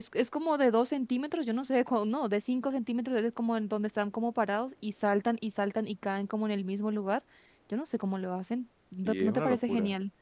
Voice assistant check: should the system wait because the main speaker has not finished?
No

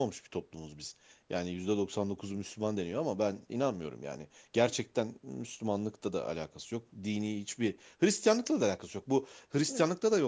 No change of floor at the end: Yes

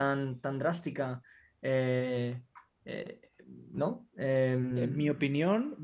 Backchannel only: No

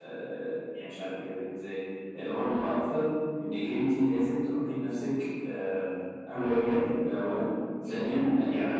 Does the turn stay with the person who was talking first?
Yes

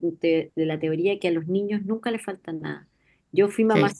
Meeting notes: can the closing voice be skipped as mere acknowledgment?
Yes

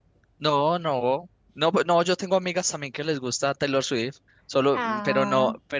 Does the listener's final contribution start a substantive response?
No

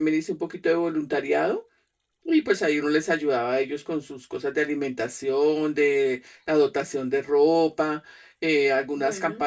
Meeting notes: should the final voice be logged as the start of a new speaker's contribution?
No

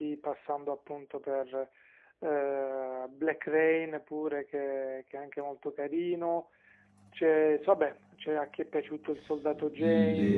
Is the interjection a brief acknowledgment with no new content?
No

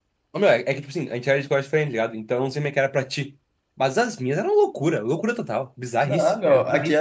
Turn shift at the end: Yes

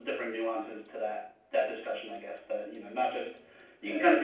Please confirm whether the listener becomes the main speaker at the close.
No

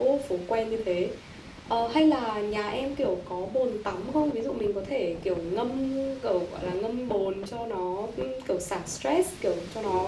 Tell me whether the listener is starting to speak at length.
No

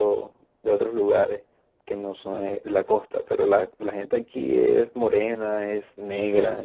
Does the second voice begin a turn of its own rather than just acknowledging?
No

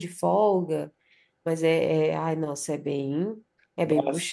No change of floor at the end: No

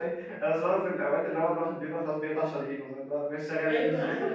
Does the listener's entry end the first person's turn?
Yes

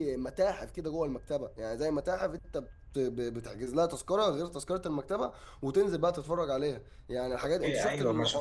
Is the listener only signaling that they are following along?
No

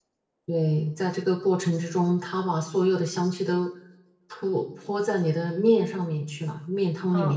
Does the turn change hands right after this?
Yes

